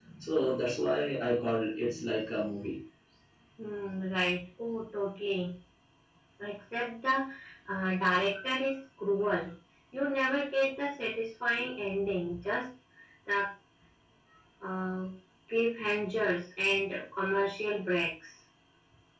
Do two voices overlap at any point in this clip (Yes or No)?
No